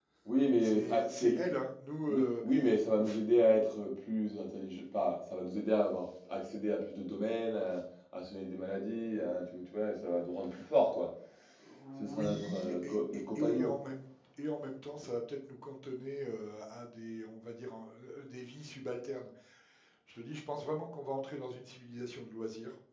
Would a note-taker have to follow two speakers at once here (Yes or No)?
Yes